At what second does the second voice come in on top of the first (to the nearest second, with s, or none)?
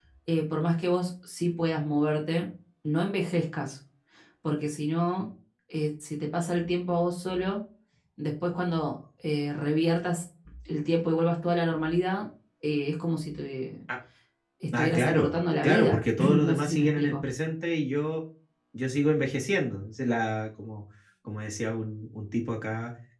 15 s